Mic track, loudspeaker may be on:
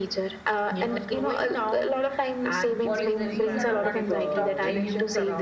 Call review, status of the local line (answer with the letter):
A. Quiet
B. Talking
B